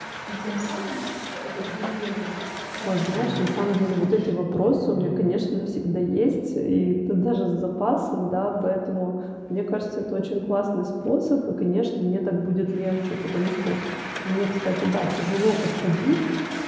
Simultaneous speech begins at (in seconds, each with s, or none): 2.9 s